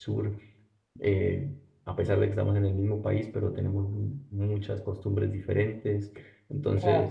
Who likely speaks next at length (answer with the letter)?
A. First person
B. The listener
A